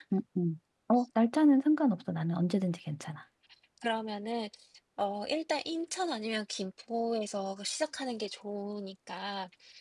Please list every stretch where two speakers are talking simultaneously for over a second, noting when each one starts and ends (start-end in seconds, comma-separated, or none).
none